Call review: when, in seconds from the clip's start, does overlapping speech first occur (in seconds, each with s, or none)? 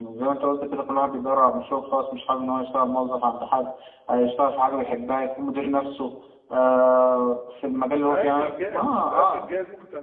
8.0 s